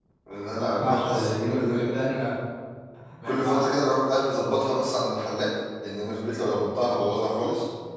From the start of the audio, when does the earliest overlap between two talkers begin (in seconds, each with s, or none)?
0.6 s